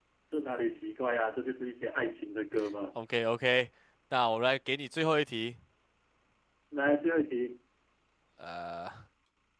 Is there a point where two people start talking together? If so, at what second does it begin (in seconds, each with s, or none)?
none